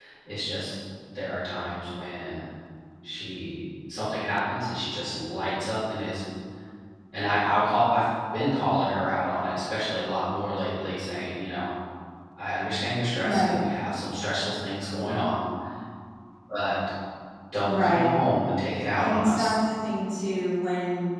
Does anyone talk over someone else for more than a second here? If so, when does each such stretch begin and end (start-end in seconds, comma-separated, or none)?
none